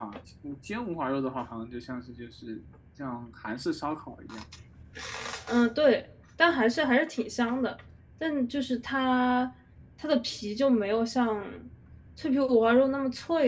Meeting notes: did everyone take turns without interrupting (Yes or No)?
Yes